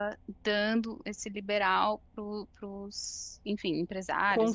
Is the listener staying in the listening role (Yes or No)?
No